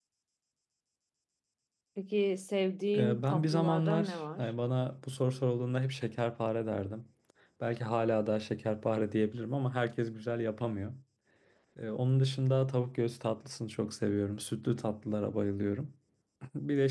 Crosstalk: present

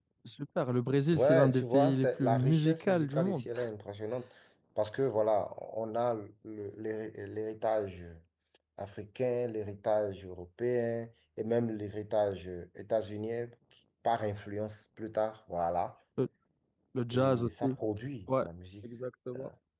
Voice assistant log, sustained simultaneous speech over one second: present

